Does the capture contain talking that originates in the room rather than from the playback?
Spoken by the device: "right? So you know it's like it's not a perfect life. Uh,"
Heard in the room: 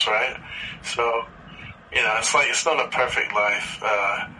No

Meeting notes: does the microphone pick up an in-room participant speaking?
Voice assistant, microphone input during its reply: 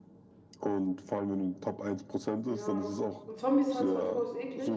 Yes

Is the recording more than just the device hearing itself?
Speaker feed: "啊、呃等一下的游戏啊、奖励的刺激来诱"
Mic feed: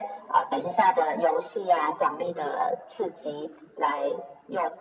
No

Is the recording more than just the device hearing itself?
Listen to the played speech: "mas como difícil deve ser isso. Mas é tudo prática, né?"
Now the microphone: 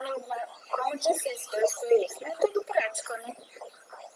No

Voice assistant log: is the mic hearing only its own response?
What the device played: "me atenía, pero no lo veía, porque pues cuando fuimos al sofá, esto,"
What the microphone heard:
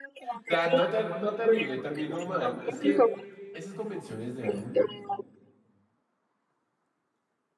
No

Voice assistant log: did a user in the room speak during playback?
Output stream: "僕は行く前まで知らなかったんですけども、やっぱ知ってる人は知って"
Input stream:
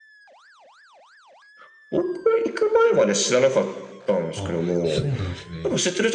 Yes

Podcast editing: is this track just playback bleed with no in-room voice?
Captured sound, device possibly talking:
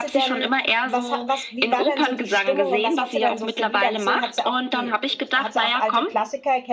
No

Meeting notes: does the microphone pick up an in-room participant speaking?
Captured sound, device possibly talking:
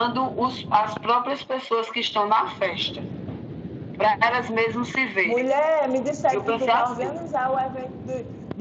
Yes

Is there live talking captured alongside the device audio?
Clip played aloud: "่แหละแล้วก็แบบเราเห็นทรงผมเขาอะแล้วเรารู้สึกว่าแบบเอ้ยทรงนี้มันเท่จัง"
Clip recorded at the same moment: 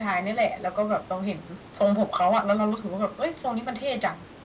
No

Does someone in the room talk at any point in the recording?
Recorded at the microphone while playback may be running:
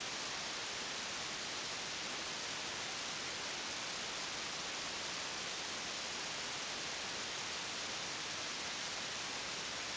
No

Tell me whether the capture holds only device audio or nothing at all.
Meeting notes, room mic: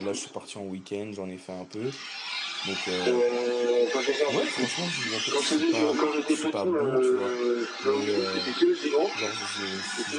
No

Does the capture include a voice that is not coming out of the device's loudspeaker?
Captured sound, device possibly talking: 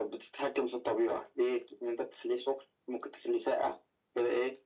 No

